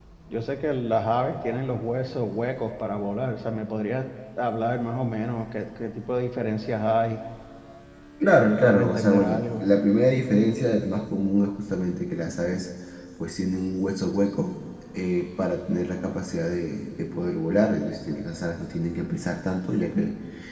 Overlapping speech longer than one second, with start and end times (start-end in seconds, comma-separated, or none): 8.4-9.6